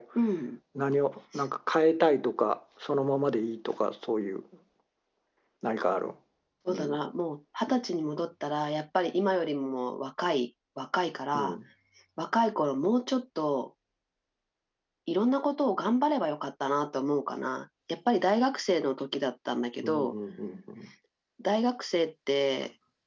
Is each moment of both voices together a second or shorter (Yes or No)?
Yes